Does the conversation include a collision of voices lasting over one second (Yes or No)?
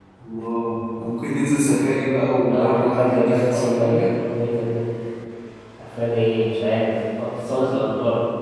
Yes